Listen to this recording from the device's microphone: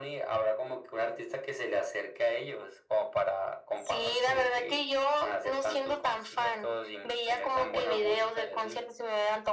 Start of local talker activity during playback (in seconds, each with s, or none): none